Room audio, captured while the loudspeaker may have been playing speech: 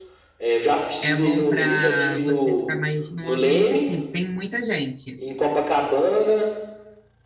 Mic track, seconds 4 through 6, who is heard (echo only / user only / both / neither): both